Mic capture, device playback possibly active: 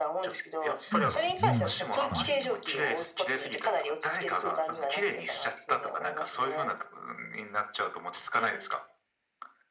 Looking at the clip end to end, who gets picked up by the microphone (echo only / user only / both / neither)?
both